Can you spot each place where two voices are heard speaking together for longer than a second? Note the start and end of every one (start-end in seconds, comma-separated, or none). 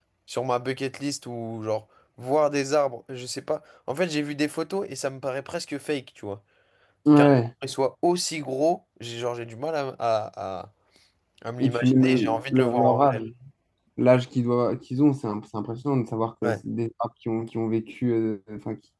11.6-13.2